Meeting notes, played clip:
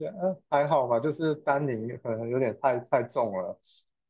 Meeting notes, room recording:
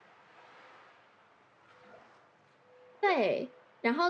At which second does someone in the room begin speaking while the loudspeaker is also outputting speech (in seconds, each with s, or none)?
3.0 s